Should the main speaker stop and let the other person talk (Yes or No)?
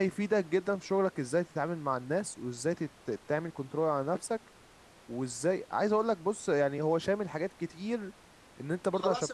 No